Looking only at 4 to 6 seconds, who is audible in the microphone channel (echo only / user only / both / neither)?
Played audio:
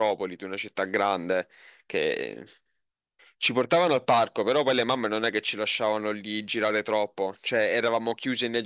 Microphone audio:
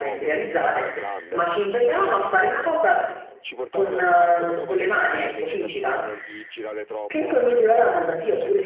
both